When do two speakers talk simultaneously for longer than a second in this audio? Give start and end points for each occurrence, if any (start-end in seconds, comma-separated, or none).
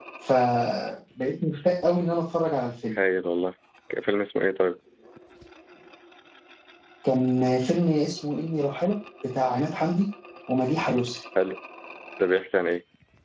none